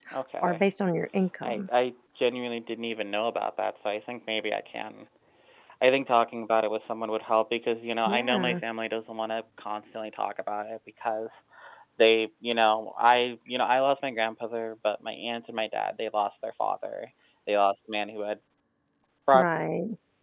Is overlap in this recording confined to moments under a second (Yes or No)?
Yes